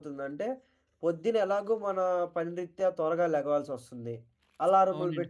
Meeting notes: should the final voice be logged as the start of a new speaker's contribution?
No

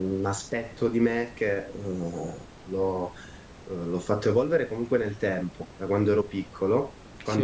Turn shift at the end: No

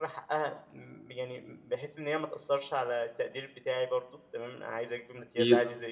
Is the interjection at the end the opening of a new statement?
No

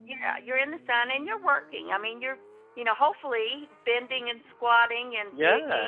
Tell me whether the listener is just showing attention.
Yes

